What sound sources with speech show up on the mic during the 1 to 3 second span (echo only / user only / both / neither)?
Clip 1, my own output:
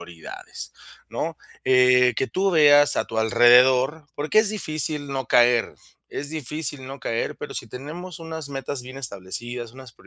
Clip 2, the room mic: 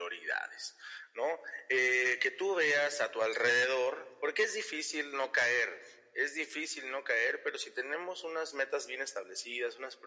echo only